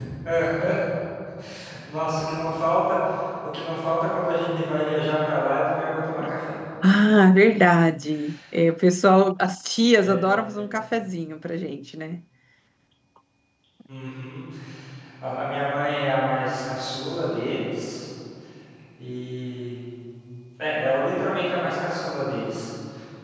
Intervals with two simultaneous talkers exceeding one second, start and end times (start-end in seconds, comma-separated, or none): none